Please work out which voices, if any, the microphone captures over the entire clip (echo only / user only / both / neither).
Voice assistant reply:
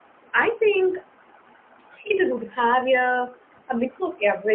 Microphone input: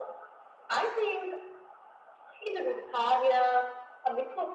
echo only